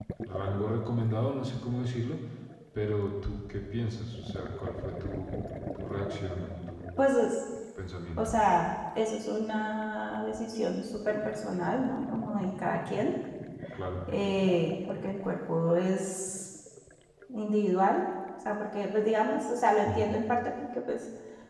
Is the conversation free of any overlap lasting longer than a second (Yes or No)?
Yes